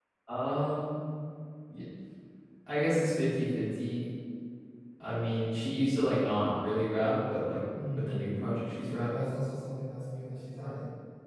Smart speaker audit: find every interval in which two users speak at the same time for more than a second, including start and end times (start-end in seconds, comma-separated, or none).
8.0-9.3